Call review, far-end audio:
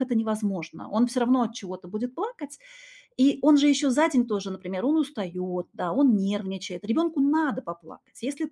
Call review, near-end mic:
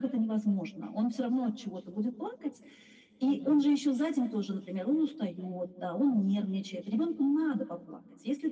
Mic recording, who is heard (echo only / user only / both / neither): both